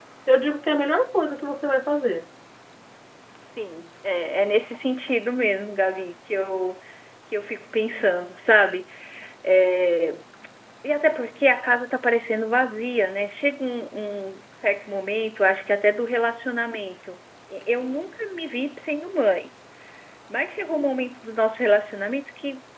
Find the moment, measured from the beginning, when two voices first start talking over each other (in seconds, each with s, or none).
none